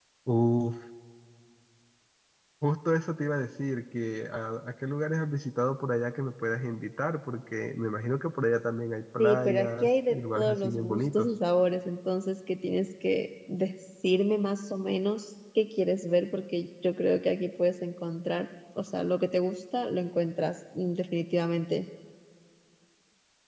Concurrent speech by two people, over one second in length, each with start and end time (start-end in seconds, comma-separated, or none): 9.2-11.3